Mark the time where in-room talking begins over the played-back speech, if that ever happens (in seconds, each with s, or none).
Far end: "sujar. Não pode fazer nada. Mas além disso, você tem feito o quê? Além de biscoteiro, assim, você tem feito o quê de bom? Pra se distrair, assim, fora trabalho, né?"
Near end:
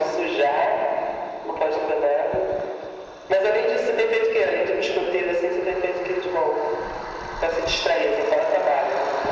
none